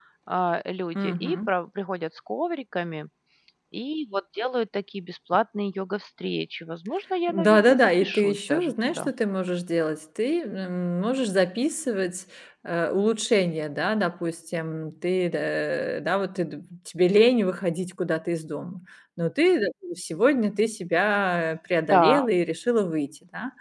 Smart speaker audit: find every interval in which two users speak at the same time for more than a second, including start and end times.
7.3-9.1

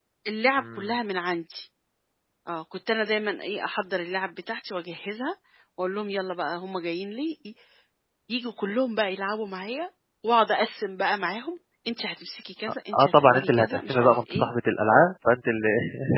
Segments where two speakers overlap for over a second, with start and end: 12.9-14.5

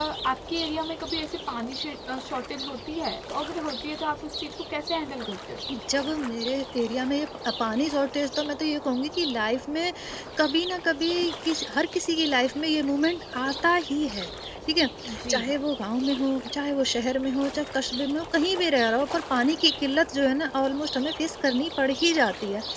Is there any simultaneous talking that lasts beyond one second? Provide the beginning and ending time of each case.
none

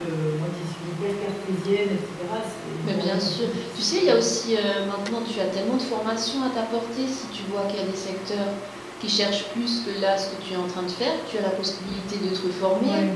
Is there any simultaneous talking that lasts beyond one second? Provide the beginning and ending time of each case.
2.8-4.2

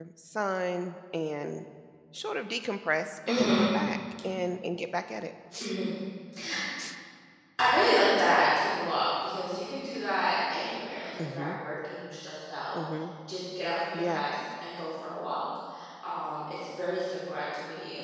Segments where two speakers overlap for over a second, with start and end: none

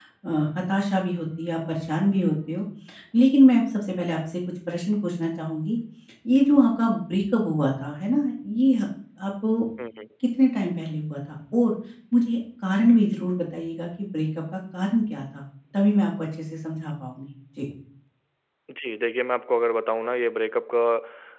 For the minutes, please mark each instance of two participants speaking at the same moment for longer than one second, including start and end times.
none

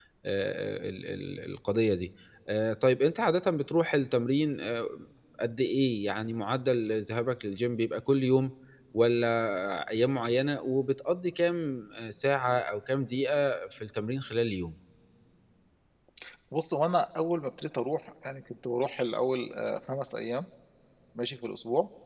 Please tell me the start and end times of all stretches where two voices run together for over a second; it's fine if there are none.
none

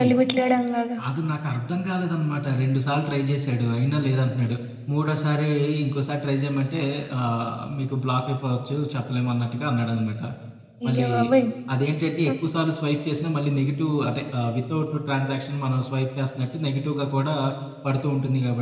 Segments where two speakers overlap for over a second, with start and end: none

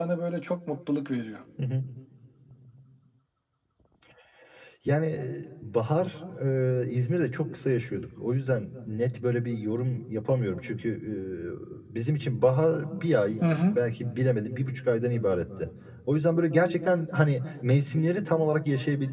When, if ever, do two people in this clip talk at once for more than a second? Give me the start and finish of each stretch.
none

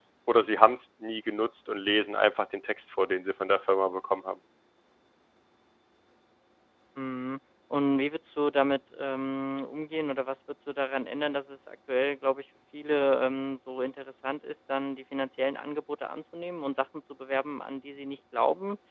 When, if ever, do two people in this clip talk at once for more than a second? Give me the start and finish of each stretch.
none

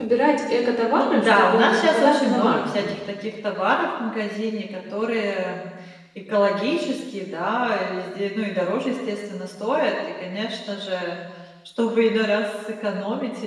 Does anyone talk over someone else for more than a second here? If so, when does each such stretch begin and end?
0.9-3.0

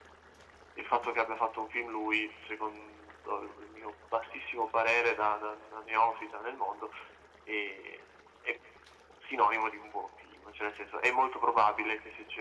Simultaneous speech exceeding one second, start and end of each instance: none

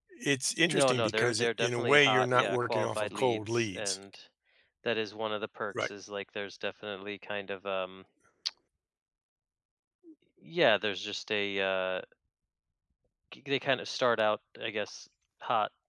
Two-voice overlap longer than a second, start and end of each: 0.7-4.0

